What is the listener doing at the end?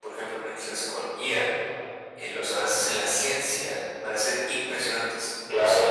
taking over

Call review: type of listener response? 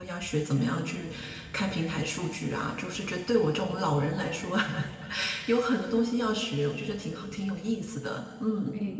taking over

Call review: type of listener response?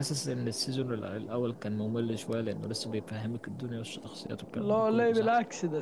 taking over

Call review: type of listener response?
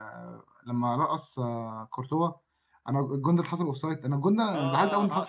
taking over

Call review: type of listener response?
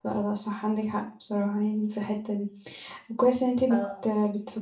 listening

